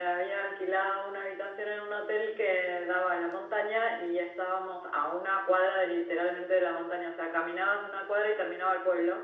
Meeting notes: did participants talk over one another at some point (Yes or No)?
No